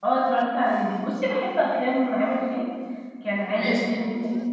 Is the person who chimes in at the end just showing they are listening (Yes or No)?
Yes